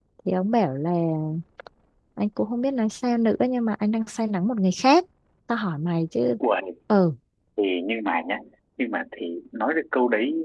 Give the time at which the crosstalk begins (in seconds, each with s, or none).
none